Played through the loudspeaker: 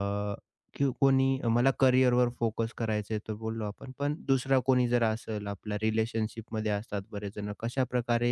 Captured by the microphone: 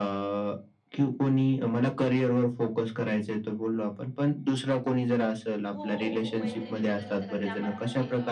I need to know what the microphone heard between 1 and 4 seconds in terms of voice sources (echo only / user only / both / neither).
echo only